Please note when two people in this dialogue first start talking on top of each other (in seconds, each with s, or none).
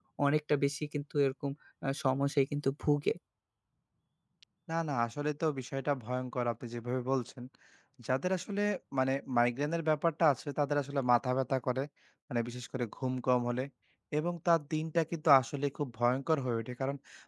none